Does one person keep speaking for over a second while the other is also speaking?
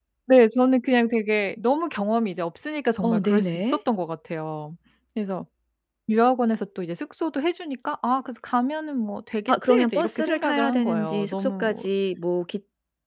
Yes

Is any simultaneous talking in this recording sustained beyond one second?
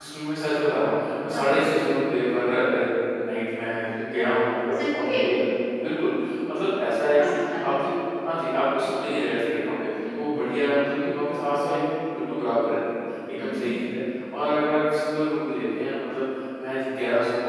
Yes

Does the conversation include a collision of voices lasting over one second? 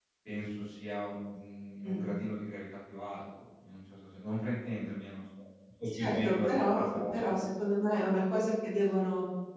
Yes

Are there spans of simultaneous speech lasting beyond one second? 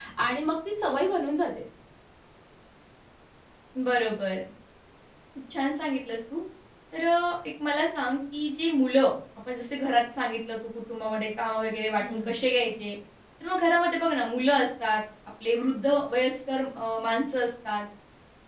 No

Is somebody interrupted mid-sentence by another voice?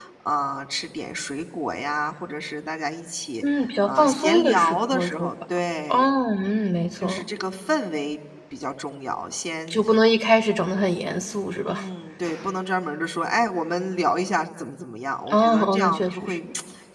Yes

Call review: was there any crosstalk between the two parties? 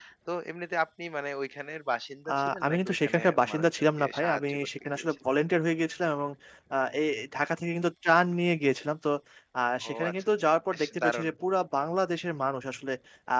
Yes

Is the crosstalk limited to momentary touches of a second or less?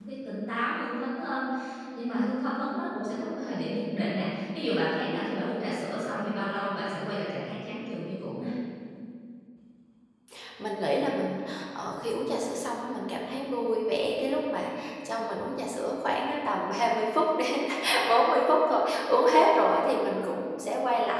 Yes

